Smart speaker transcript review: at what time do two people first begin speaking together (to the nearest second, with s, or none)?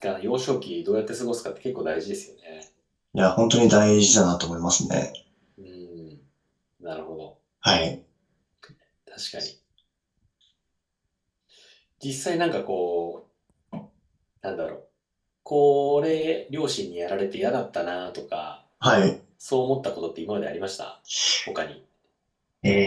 none